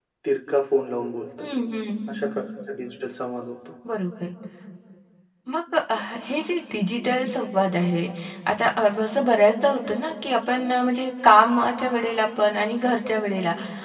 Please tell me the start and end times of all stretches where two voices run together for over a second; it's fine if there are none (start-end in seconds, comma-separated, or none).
none